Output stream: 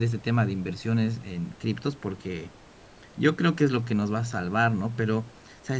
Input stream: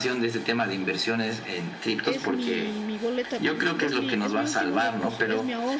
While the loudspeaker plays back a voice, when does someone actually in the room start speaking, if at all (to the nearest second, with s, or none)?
2 s